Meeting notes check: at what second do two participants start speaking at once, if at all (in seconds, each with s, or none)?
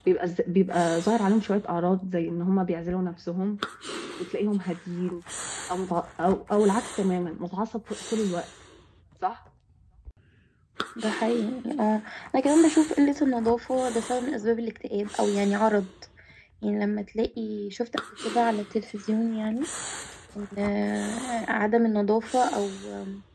none